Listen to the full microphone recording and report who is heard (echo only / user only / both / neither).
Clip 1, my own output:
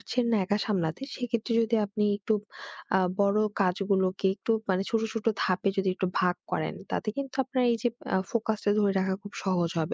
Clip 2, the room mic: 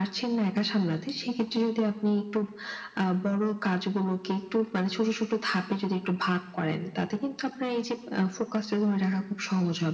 echo only